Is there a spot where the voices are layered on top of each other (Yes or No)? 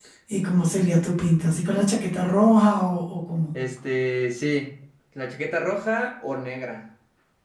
No